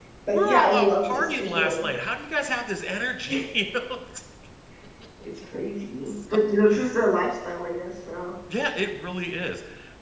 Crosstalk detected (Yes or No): Yes